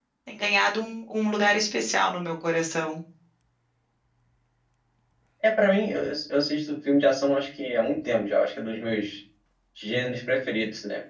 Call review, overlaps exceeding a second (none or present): none